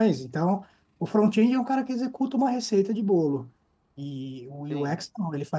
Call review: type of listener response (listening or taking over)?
listening